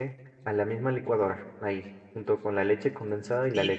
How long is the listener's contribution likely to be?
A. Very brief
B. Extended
B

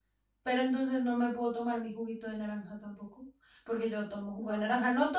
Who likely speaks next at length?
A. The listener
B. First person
B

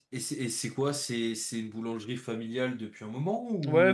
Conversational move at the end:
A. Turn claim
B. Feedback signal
A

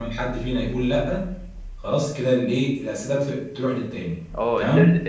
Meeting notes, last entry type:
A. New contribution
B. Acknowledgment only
A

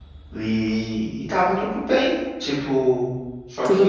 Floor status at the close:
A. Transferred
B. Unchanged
A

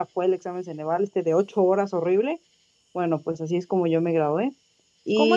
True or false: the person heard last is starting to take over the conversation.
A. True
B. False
A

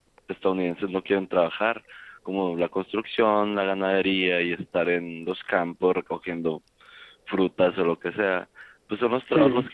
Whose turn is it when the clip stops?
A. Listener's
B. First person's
B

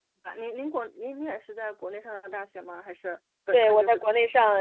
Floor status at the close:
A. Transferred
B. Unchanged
A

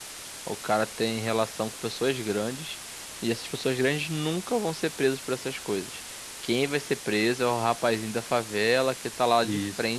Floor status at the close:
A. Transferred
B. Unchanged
B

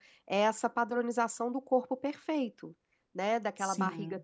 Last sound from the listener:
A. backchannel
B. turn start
A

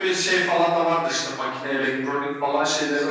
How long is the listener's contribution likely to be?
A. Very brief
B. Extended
B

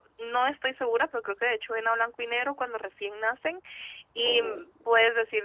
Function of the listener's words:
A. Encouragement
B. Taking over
A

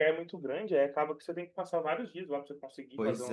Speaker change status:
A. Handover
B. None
A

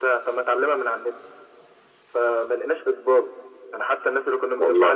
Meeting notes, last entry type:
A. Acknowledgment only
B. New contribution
A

